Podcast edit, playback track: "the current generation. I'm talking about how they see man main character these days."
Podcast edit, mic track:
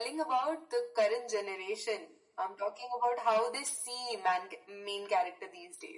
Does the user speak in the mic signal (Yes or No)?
No